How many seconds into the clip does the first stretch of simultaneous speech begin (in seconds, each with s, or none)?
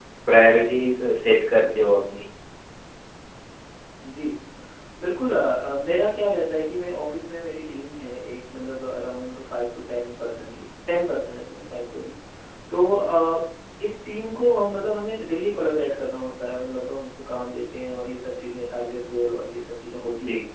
none